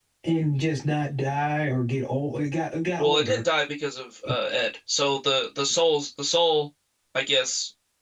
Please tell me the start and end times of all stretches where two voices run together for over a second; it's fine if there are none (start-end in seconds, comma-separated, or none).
none